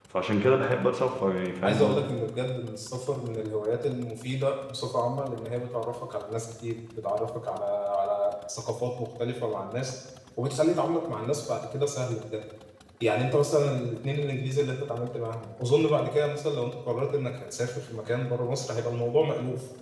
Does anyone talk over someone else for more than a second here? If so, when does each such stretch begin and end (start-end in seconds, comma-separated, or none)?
none